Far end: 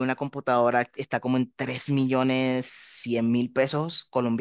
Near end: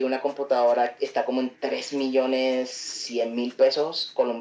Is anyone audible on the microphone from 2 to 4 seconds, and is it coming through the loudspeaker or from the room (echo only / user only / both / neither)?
echo only